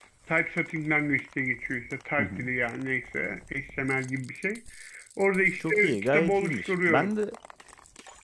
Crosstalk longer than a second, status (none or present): present